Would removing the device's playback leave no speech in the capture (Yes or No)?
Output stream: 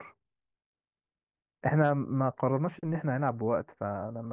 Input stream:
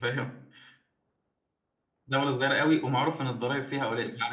No